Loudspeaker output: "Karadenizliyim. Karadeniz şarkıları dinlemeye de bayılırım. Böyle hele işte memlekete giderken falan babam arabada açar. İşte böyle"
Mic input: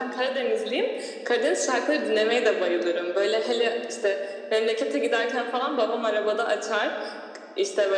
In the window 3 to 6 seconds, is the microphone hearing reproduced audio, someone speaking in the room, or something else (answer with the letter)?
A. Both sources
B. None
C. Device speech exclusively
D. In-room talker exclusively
C